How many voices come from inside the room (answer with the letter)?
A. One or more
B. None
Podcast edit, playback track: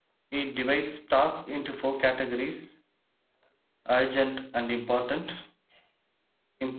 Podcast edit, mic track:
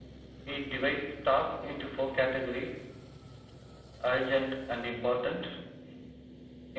B